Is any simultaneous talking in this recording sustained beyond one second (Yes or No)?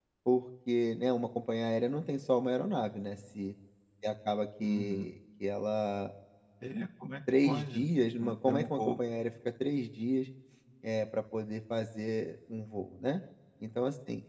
Yes